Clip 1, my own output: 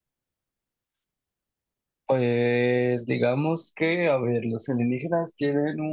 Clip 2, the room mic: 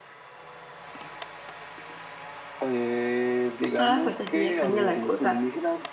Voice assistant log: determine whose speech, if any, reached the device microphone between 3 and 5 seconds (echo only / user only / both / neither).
both